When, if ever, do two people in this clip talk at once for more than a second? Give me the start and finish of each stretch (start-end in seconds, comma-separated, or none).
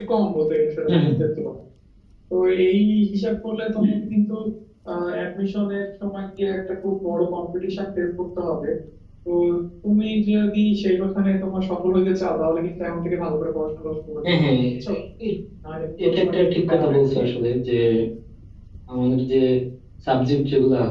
16.0-17.3